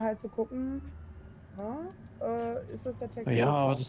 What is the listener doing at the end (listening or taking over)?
taking over